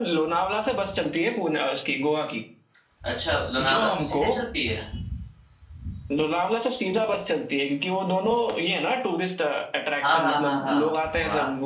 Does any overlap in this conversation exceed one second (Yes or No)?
Yes